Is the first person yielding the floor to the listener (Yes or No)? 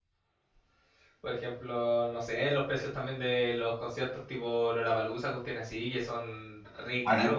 Yes